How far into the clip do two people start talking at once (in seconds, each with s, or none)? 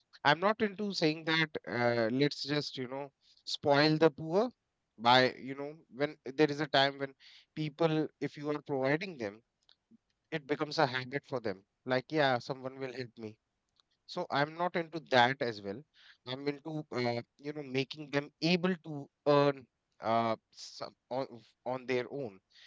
none